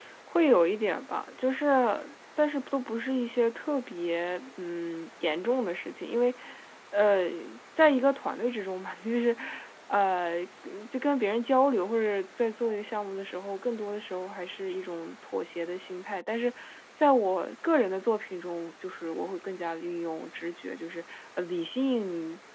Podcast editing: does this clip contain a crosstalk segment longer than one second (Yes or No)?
No